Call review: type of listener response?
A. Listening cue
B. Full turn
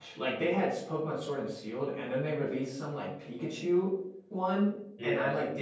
A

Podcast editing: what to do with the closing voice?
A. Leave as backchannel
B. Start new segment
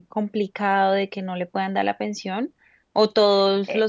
A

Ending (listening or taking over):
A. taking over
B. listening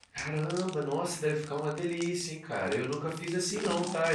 B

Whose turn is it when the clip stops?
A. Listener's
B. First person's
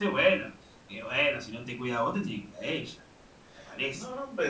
A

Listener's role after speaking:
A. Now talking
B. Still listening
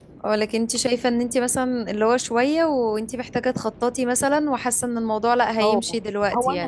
A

